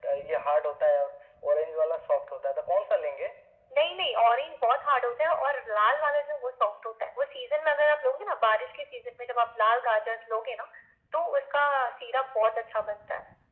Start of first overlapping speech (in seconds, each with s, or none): none